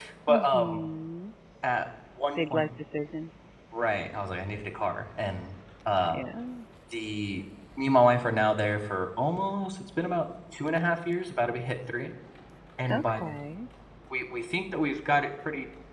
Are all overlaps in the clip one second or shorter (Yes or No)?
Yes